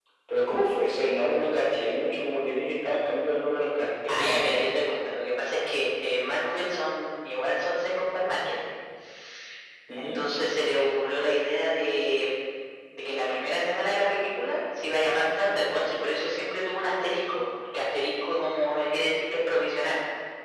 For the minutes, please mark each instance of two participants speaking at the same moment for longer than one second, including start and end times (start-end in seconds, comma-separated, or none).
none